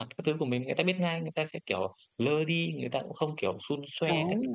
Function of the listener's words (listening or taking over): taking over